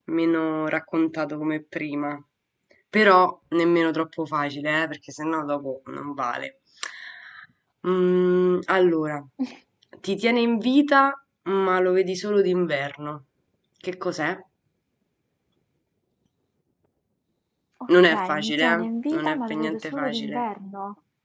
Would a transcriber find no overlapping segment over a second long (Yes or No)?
No